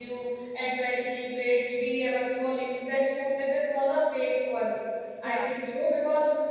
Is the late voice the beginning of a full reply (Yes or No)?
No